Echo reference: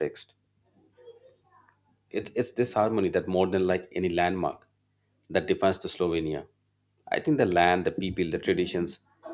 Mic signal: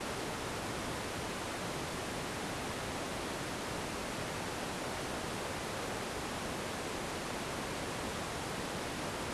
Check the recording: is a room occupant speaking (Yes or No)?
No